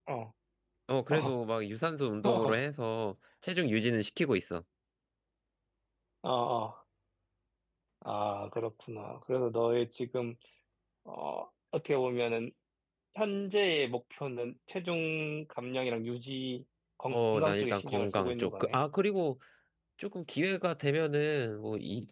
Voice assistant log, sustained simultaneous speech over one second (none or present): present